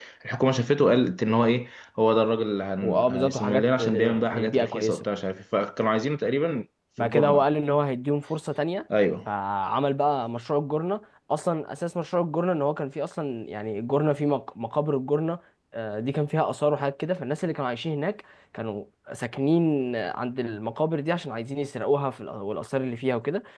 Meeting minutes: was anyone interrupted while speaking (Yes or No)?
Yes